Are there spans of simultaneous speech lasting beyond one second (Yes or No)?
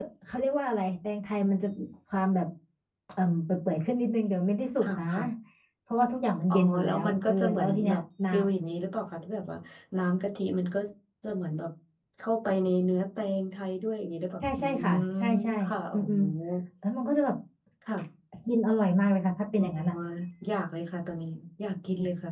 Yes